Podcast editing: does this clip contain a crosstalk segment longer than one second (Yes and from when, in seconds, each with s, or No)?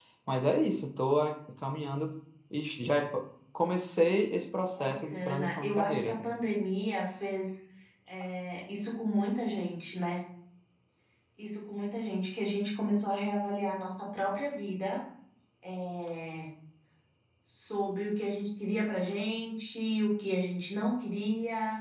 Yes, from 4.8 s